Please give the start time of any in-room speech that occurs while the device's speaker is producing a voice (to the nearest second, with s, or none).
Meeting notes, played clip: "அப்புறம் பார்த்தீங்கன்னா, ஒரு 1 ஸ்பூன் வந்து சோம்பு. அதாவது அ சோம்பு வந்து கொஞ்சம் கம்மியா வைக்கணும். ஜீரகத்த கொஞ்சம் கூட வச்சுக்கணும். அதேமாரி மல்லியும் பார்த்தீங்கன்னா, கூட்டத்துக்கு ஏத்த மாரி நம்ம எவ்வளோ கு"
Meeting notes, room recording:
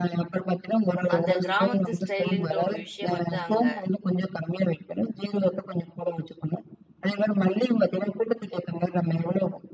1 s